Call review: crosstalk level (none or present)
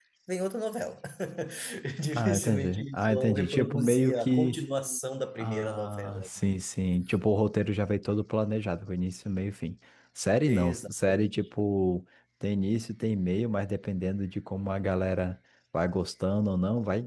present